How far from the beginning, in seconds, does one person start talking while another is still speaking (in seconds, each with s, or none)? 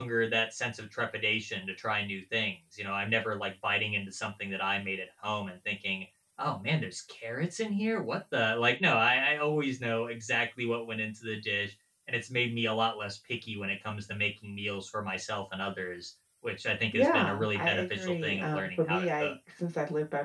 16.9 s